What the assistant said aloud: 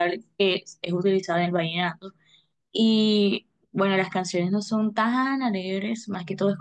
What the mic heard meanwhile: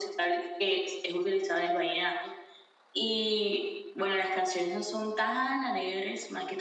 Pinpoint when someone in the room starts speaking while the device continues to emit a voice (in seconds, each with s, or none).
none